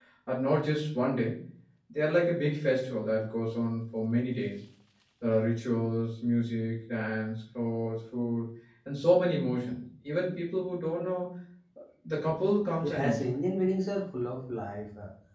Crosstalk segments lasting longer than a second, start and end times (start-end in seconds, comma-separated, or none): none